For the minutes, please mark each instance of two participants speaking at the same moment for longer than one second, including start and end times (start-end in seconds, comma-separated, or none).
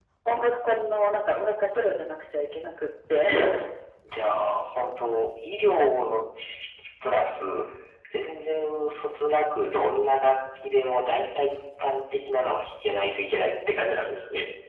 none